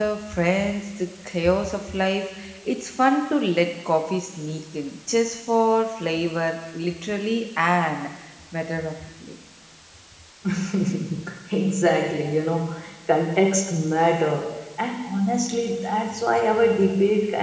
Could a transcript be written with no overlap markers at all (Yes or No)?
Yes